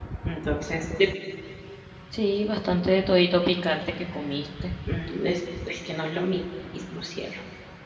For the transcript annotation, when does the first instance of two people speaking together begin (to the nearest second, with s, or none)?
none